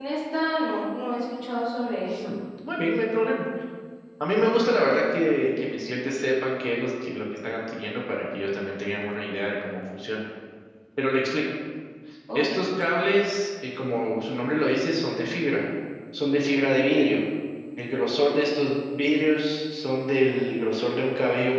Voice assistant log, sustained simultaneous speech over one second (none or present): none